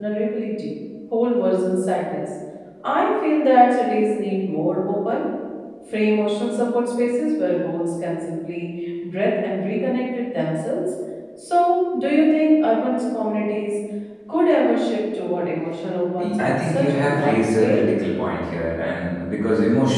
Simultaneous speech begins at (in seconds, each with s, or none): 16.2 s